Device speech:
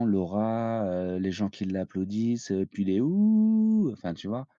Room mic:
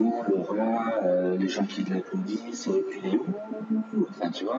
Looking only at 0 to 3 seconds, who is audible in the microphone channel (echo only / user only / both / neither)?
echo only